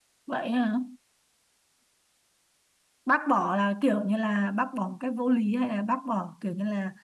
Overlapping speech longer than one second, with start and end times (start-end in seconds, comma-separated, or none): none